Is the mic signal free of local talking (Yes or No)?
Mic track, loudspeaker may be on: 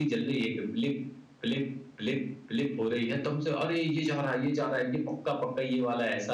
Yes